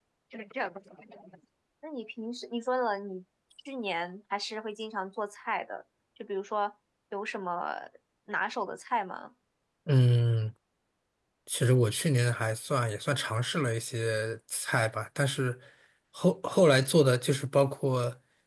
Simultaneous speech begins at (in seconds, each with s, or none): none